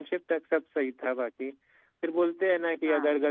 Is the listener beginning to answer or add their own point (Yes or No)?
No